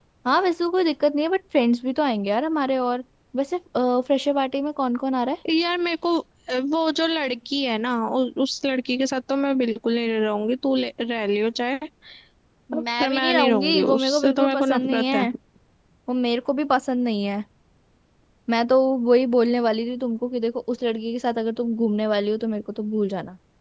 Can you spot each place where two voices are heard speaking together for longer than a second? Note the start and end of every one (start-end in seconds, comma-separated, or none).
13.0-15.3